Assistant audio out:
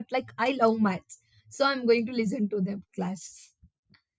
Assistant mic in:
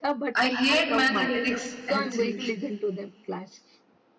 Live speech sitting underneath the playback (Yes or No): No